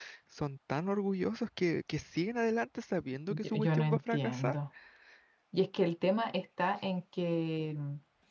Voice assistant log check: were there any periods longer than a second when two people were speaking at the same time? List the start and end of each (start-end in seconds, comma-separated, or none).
3.3-4.5